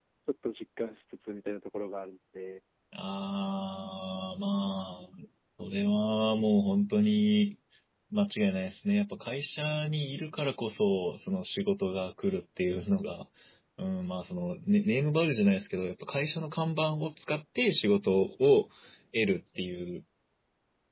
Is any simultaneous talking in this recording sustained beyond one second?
No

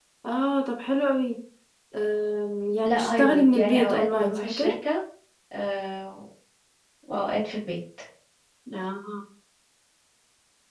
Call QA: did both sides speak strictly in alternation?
No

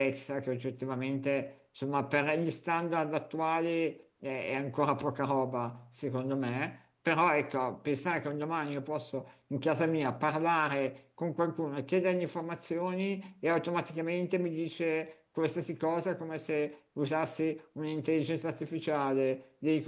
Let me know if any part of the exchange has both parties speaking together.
No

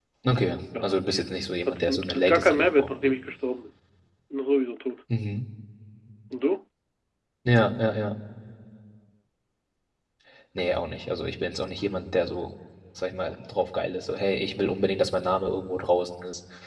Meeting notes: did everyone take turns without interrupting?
No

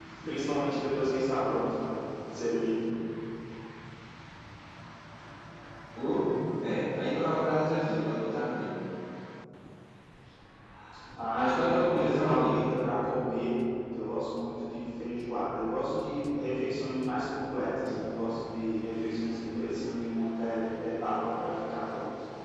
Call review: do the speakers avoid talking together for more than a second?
No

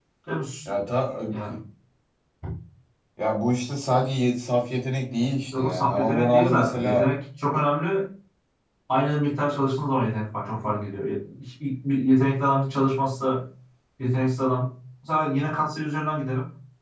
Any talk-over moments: Yes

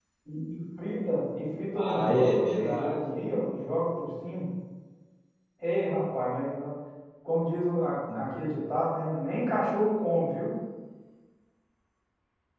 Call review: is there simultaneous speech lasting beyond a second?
Yes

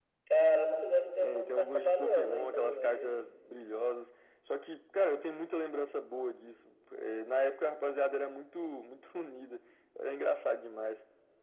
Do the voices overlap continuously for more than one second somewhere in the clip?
Yes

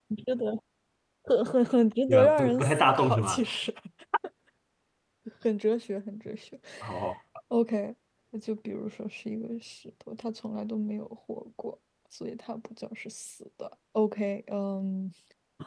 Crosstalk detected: Yes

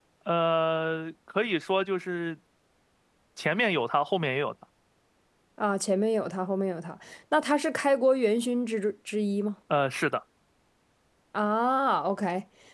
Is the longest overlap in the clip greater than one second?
No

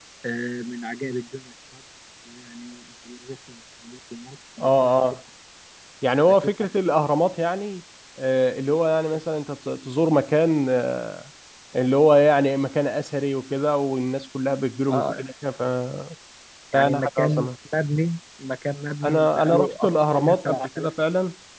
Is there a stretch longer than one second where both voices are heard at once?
Yes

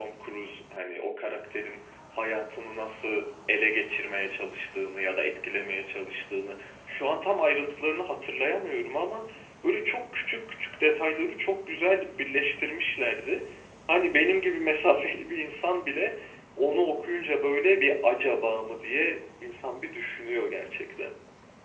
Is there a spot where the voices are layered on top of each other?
No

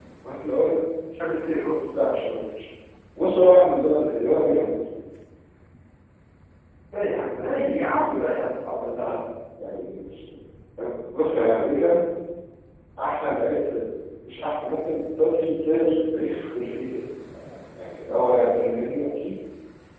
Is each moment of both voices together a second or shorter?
Yes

